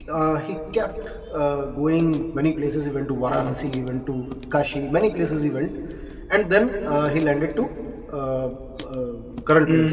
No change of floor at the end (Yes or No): No